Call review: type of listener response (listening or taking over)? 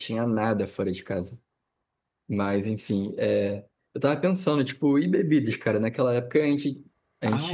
listening